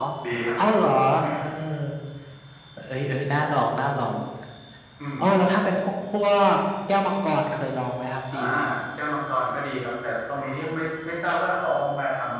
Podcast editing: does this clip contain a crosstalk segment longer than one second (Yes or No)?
No